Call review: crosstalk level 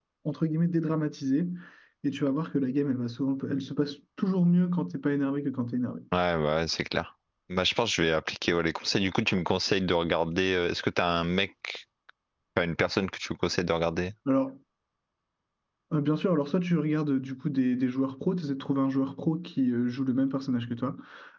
none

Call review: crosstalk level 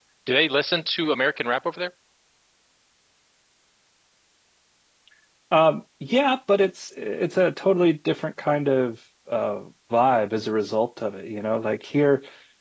none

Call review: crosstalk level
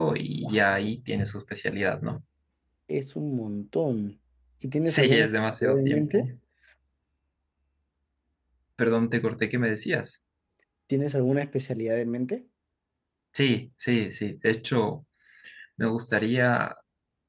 present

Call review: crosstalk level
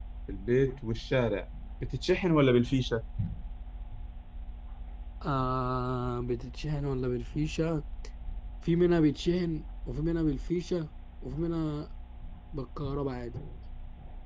none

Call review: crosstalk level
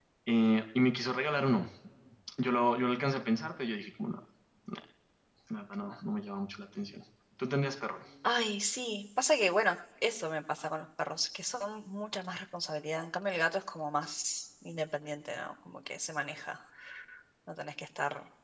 none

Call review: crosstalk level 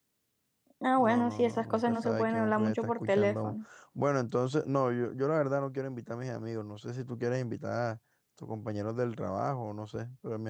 present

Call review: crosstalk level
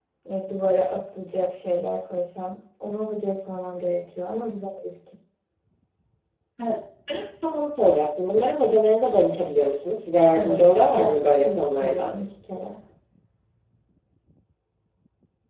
present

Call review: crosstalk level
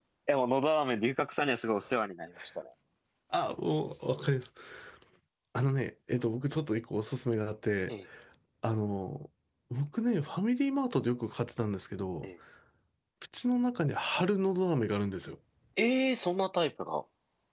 none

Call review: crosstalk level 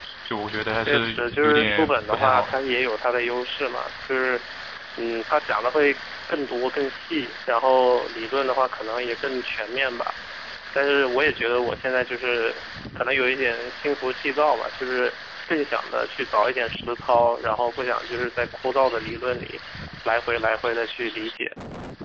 present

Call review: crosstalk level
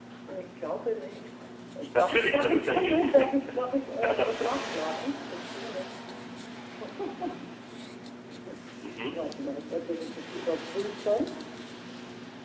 present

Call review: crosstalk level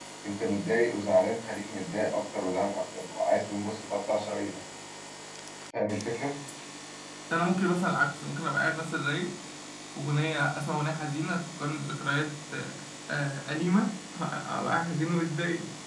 none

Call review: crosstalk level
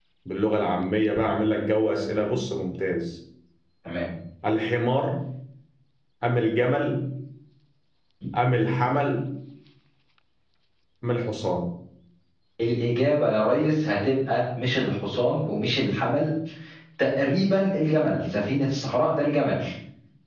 none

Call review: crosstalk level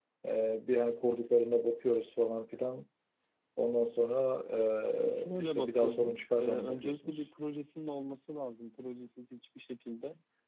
present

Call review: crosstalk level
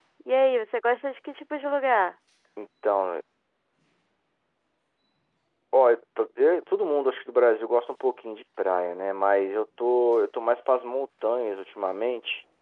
none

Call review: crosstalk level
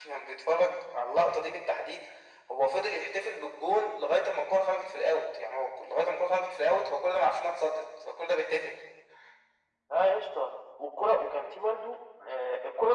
none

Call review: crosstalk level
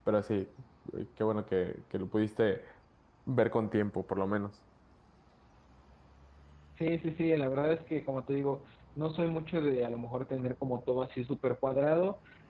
none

